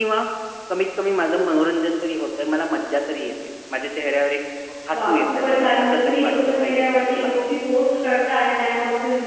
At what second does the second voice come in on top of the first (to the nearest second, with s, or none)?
5 s